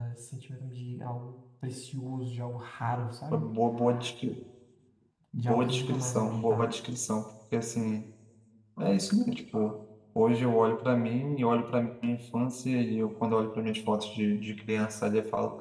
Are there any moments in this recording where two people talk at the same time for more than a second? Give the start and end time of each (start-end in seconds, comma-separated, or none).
5.3-6.7